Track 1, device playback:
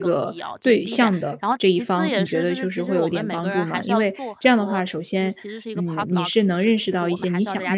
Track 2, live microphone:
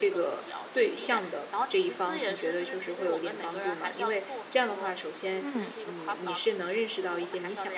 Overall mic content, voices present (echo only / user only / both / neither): both